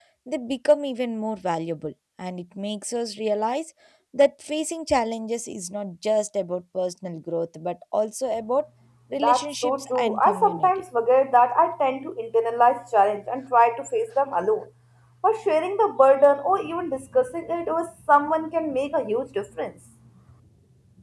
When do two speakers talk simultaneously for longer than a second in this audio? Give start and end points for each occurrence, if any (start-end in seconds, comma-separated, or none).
9.2-10.7